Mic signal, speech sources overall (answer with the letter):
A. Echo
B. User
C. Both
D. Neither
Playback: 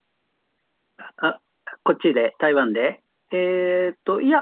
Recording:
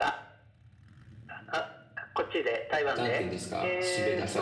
C